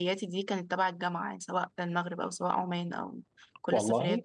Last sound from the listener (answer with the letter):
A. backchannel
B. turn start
A